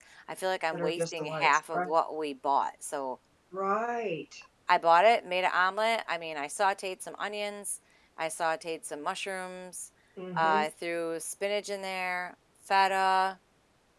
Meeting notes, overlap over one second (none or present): present